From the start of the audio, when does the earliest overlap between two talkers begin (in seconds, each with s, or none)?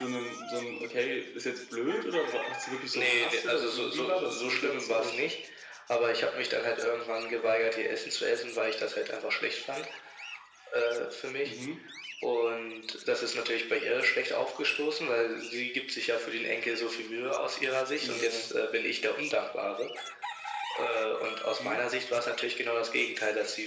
2.9 s